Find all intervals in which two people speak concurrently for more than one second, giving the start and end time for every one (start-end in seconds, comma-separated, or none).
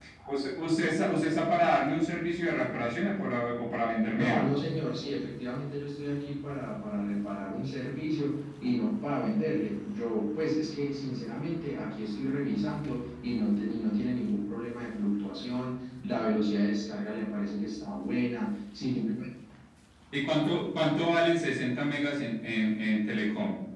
none